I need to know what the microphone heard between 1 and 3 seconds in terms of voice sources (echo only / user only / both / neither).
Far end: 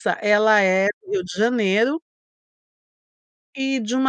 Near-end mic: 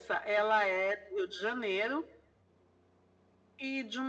echo only